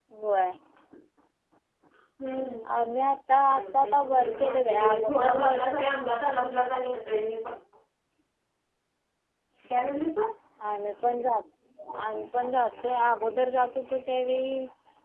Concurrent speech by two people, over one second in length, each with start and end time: 3.5-5.5

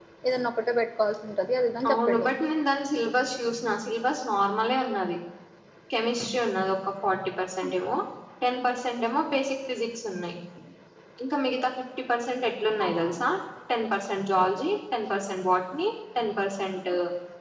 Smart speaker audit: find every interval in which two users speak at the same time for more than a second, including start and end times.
none

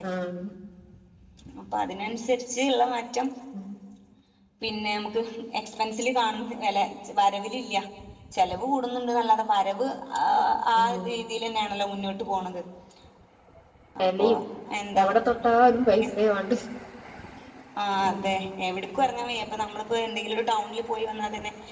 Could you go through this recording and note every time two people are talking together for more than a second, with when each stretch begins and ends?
none

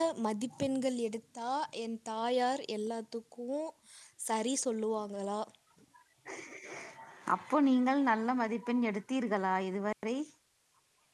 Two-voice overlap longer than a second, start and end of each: none

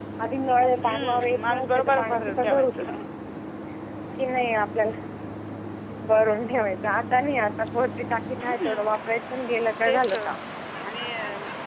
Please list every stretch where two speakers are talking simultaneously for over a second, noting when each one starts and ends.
0.8-2.9

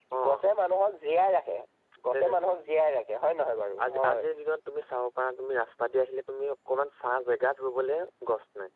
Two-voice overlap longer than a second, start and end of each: none

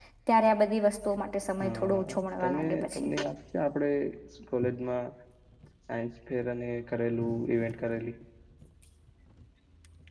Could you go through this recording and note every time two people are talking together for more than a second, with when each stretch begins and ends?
1.6-3.1

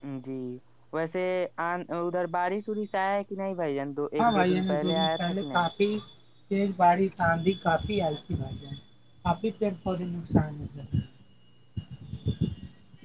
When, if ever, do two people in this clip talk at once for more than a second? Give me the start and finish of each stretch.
4.2-5.6

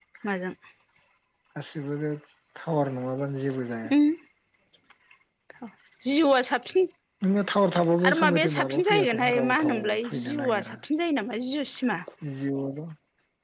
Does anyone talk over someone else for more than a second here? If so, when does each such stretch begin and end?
8.0-10.8

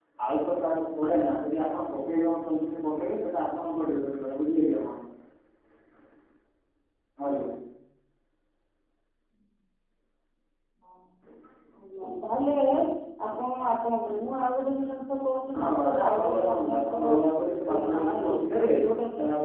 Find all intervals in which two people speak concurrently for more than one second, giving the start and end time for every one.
15.5-18.4

